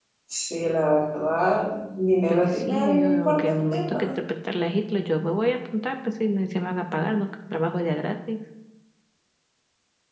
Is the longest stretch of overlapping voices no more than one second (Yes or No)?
No